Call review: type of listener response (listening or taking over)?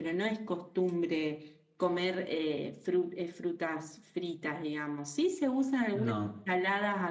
listening